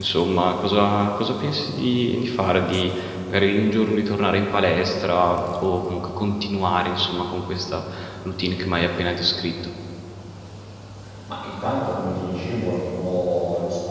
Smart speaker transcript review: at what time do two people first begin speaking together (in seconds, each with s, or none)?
none